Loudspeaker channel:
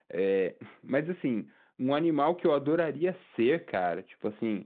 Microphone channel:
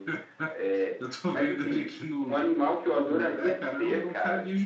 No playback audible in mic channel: No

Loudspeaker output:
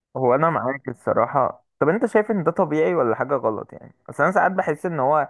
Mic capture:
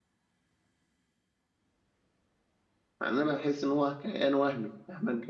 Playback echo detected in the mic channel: No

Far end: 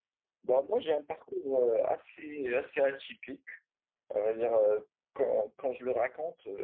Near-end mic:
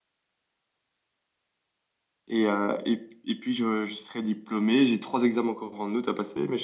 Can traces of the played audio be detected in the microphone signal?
No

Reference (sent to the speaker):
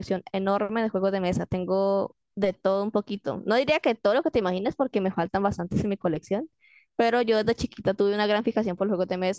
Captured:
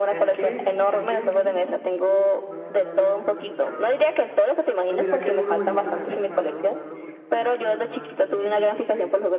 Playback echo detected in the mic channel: Yes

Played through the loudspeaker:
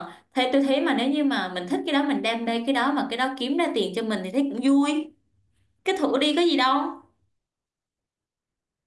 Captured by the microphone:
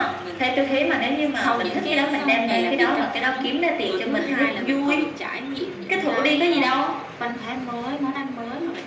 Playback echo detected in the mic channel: Yes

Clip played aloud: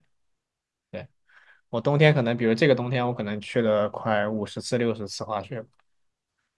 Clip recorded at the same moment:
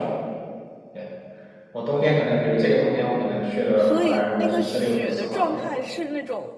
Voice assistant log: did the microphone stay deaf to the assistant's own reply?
No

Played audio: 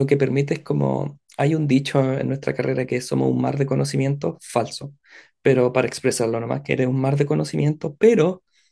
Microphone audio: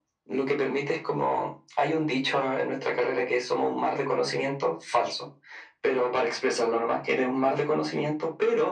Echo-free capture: No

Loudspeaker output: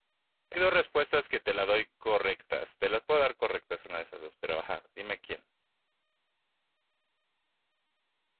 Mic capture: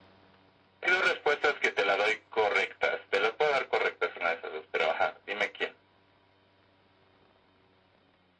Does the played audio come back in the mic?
Yes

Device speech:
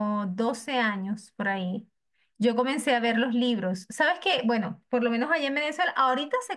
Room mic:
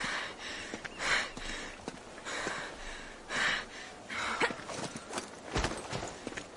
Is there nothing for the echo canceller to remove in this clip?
Yes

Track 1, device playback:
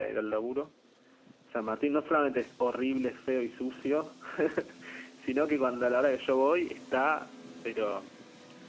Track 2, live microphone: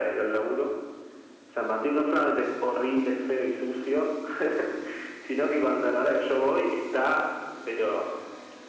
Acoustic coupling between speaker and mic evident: Yes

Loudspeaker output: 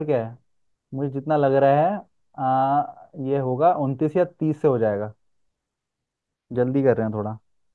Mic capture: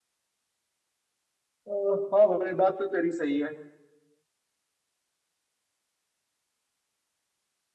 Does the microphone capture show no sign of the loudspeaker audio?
Yes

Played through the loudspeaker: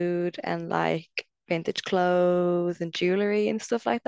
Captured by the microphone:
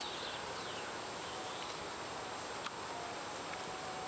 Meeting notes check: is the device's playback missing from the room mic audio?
Yes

